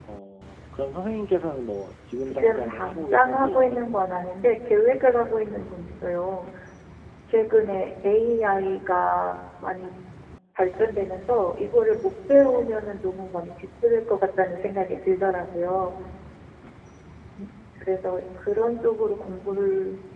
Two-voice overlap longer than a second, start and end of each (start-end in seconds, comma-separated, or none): 2.2-3.8